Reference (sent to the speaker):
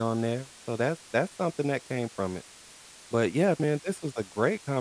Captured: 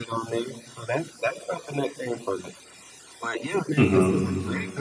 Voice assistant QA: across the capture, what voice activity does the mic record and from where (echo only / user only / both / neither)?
both